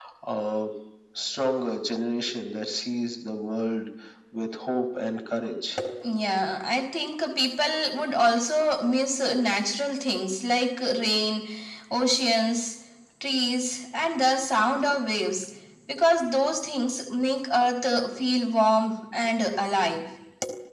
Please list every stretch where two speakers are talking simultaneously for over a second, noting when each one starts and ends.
none

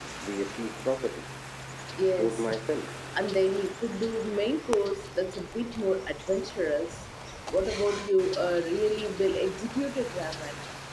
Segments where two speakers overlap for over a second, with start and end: none

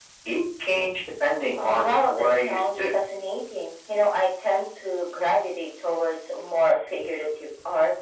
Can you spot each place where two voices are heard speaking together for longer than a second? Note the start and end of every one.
1.6-3.0

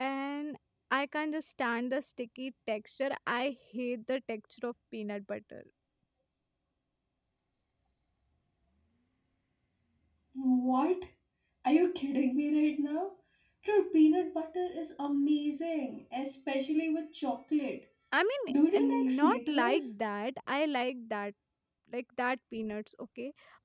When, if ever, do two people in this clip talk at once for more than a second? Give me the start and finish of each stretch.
18.5-19.9

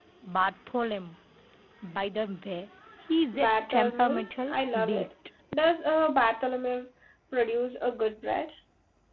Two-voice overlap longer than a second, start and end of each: 3.3-5.1

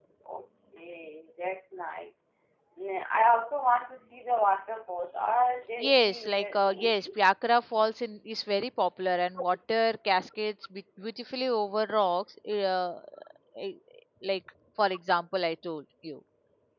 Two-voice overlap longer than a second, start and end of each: 5.8-7.1

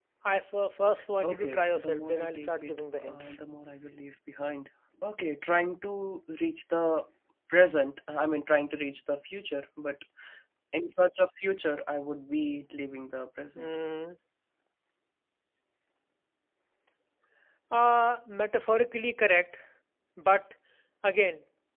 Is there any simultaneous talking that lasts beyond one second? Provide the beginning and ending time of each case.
1.3-3.4

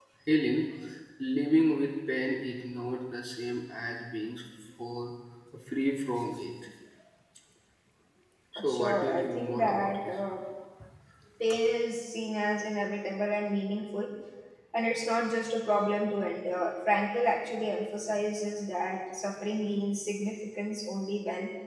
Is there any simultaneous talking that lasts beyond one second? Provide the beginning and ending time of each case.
8.7-10.0

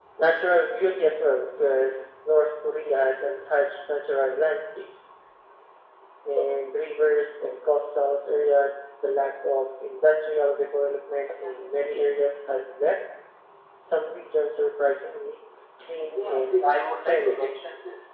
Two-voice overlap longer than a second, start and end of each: 16.2-17.4

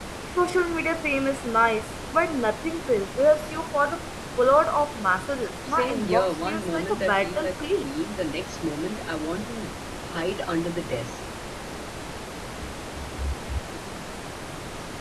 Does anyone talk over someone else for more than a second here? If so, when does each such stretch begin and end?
5.7-7.9

